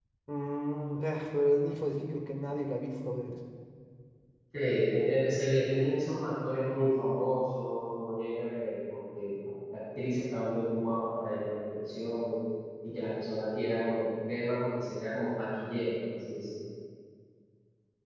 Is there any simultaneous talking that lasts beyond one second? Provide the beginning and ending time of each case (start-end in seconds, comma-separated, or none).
none